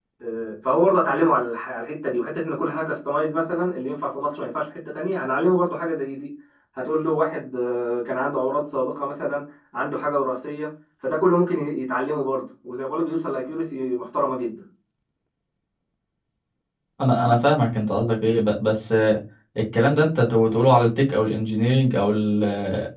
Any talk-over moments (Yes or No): No